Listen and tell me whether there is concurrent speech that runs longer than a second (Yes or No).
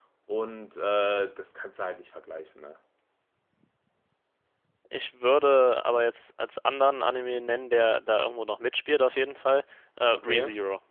No